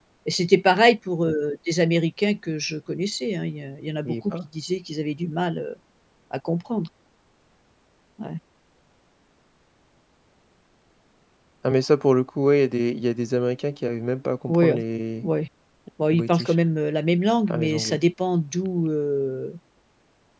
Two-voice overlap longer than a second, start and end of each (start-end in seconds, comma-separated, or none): none